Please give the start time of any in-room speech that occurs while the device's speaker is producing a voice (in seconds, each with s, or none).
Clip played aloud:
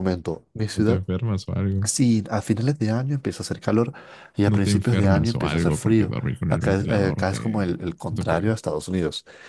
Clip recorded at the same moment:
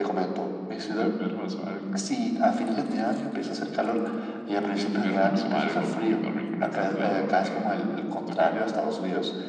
none